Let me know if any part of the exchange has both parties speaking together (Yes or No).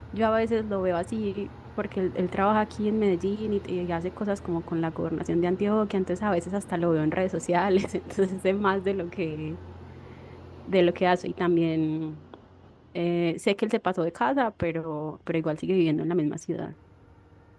No